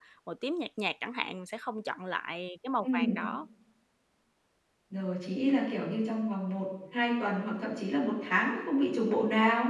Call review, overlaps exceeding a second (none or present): none